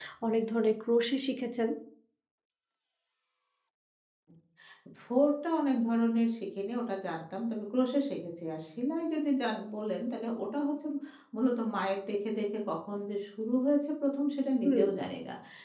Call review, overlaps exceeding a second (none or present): none